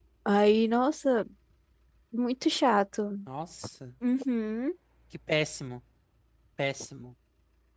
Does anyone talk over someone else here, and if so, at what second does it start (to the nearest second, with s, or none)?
none